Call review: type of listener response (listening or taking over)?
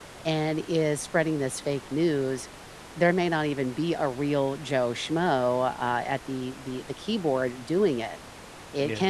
listening